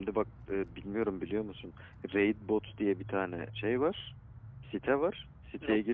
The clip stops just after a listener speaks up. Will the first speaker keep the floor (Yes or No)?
Yes